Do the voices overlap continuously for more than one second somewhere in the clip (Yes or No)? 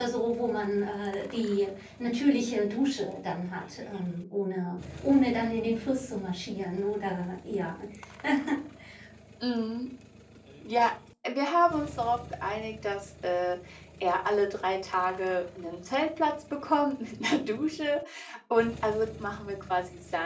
No